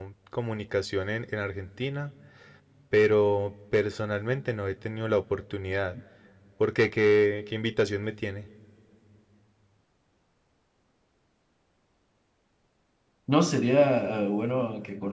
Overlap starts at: none

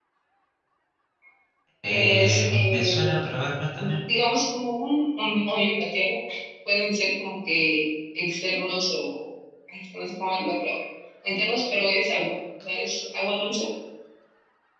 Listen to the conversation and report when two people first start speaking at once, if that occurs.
2 s

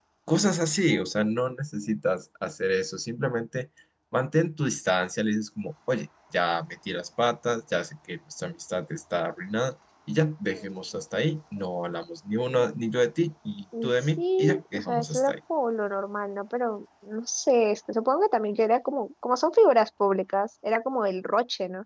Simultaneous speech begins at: 14 s

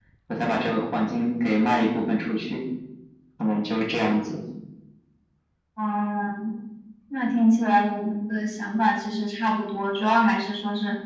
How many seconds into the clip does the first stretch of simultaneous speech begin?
none

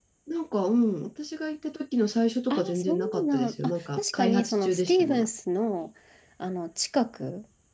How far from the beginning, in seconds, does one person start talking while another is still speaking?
3 s

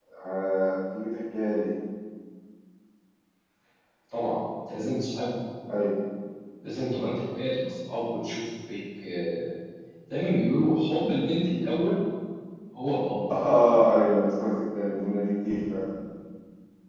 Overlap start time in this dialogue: none

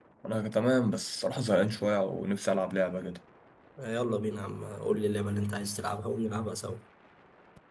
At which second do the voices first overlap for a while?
none

